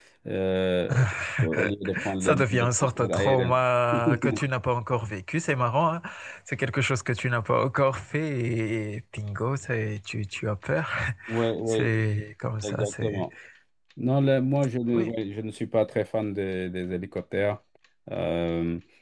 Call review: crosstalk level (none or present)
present